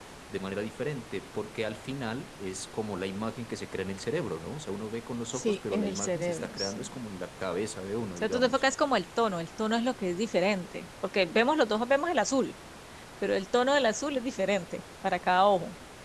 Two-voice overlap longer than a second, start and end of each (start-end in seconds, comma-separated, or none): 5.3-7.0